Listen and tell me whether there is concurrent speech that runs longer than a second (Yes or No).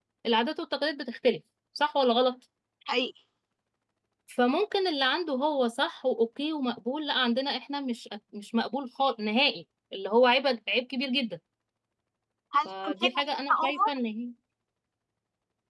Yes